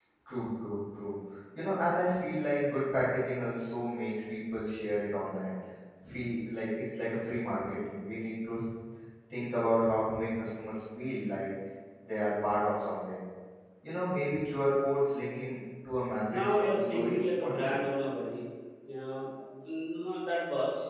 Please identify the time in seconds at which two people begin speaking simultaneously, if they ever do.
16.3 s

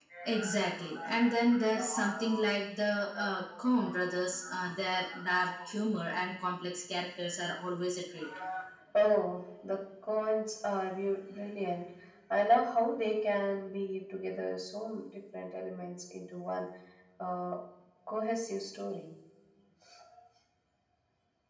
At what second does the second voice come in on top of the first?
none

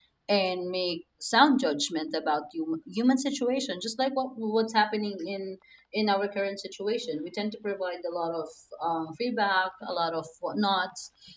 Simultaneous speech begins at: none

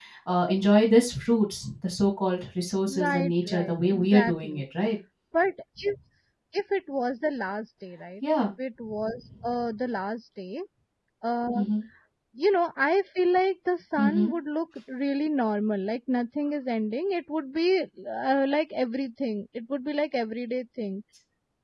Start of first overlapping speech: 2.9 s

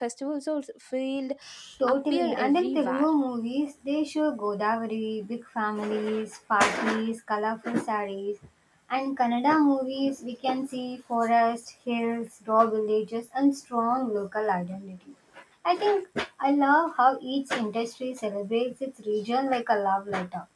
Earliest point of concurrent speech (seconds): 1.9 s

